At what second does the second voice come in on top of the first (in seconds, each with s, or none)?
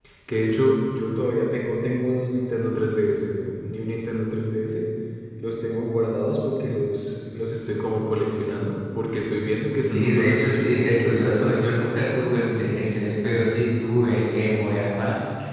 9.8 s